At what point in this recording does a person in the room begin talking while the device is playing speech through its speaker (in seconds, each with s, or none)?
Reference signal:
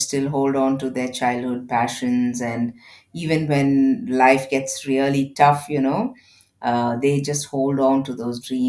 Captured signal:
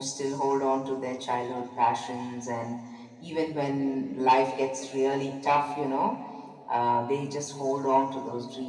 none